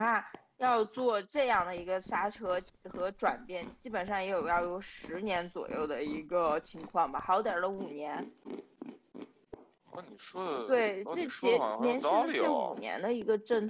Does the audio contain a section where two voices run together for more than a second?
Yes, from 10.7 s

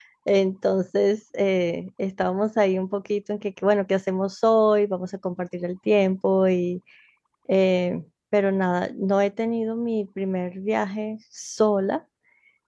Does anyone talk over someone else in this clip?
No

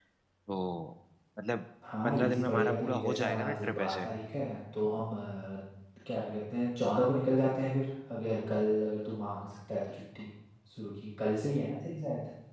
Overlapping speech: Yes, from 2.0 s

